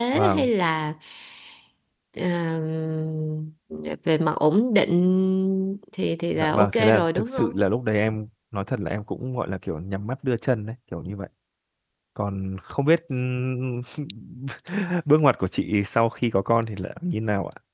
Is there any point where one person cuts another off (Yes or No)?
Yes